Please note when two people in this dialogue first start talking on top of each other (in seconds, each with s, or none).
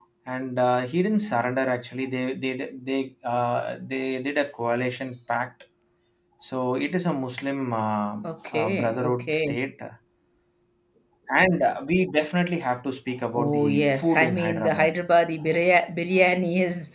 8.2 s